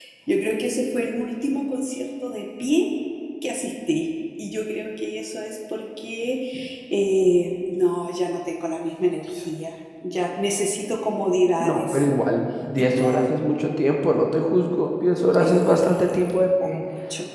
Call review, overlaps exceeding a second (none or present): present